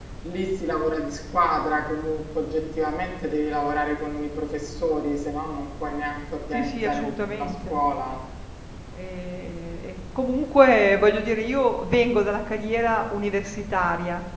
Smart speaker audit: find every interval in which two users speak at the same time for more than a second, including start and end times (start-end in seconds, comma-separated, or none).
6.5-7.8